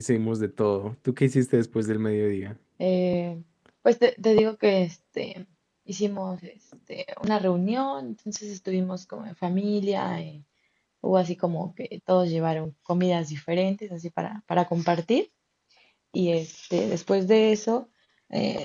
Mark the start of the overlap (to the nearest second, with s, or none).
none